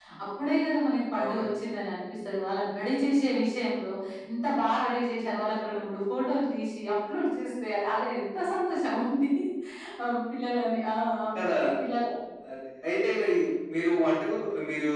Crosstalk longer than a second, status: none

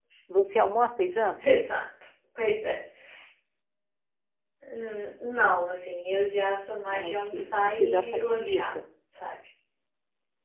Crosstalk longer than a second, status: present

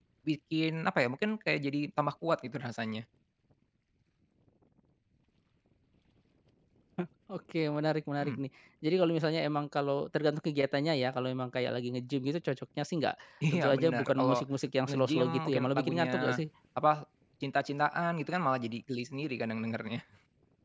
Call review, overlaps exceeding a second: present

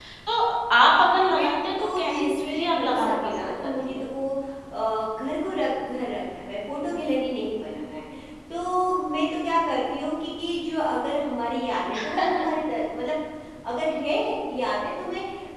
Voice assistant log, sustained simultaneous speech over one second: present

